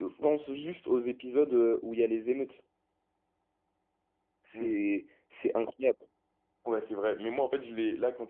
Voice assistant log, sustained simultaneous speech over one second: none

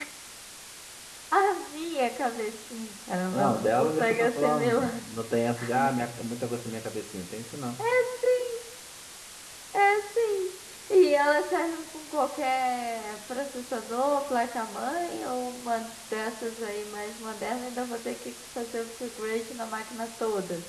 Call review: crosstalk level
present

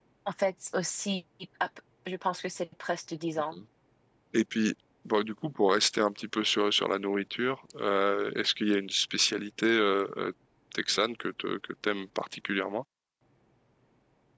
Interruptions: none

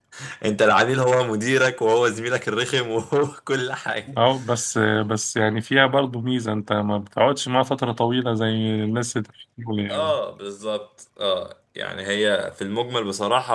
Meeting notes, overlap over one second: none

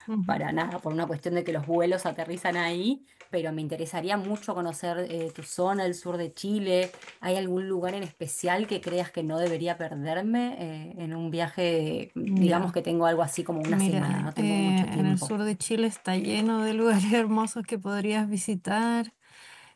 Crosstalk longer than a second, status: present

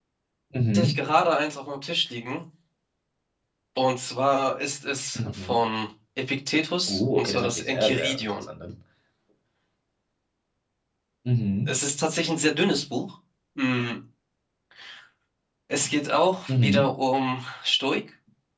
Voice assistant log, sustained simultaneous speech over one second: present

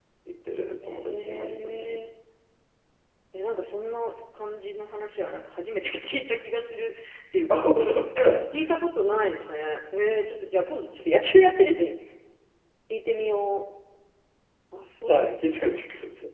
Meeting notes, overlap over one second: present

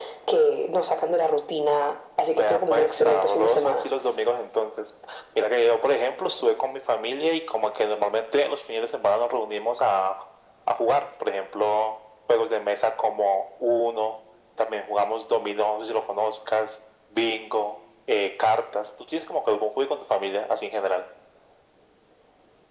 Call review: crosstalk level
present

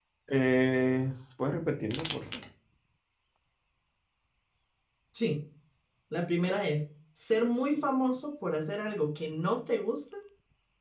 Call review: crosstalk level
none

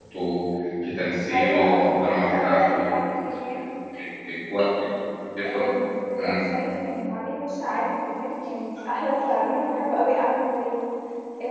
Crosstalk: present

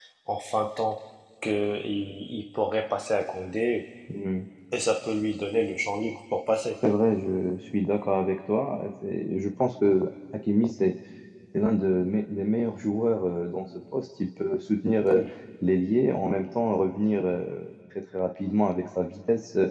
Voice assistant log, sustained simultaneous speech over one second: none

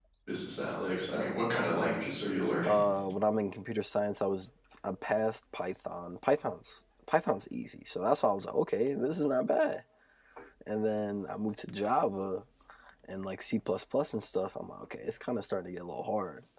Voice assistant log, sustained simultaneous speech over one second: none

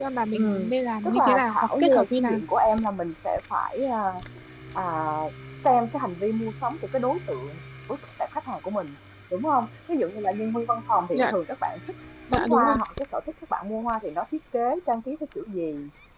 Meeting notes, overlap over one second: present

